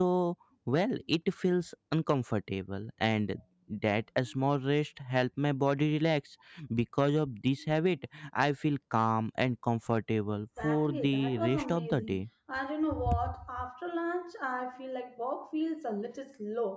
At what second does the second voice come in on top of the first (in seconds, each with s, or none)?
10.6 s